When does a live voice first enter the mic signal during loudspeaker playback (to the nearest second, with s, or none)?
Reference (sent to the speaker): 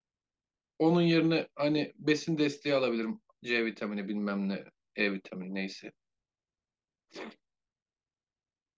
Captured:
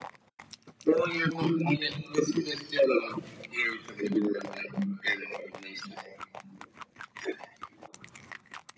none